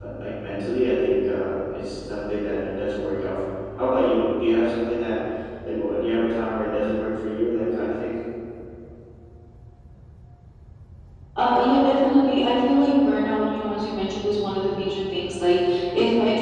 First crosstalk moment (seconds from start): none

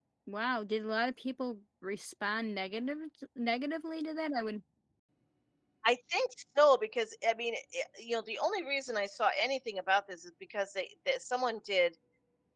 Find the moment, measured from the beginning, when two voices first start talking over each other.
none

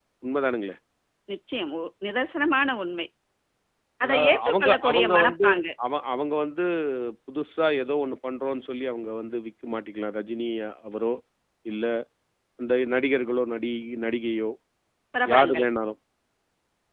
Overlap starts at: 4.0 s

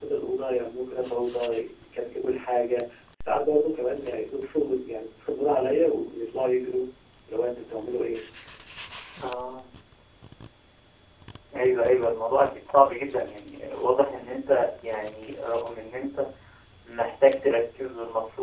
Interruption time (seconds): none

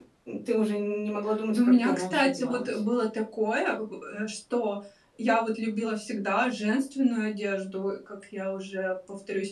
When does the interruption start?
1.5 s

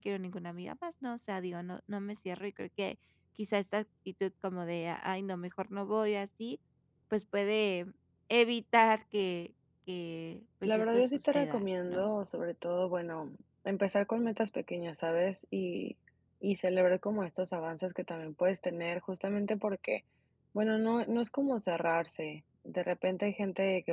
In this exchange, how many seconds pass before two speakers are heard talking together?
10.6 s

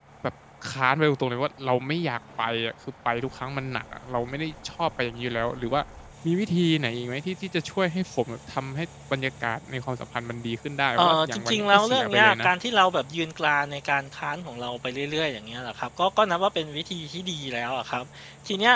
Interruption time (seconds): 11.0 s

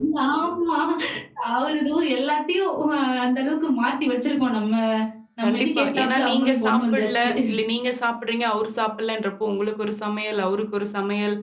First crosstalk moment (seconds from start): 5.4 s

